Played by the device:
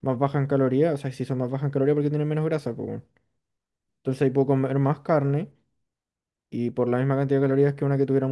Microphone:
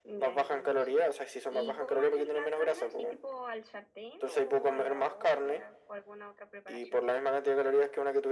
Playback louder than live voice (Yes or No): Yes